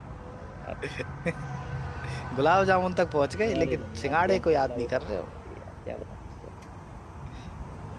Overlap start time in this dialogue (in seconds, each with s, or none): 3.4 s